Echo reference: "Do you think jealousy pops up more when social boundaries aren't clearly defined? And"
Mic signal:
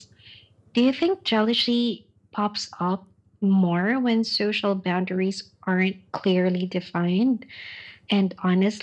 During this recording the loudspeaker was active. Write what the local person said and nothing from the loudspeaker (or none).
none